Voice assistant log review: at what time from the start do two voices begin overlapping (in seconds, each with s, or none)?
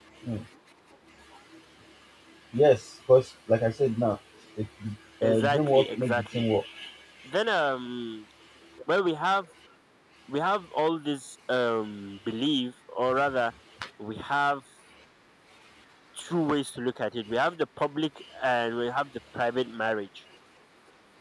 5.2 s